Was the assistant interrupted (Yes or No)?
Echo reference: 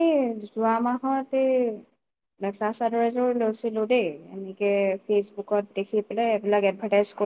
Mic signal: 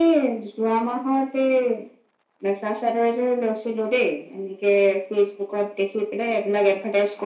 No